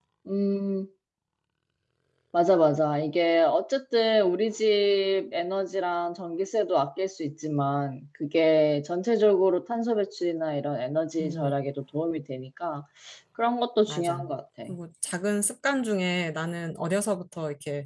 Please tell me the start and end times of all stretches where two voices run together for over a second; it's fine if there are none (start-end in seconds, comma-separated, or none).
none